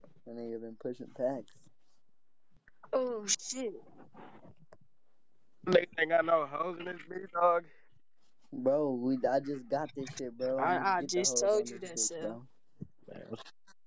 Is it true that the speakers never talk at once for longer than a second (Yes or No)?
No